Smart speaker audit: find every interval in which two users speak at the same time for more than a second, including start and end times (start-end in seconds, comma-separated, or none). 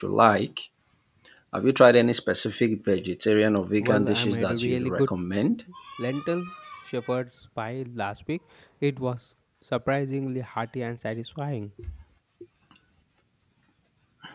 3.8-5.1